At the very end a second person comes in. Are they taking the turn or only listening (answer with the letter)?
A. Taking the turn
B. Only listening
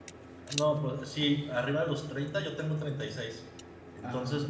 B